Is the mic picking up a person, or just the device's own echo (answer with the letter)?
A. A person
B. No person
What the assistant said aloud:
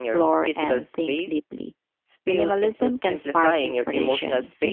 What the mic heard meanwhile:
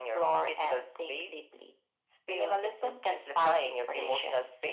B